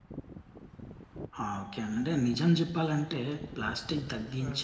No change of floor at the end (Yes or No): Yes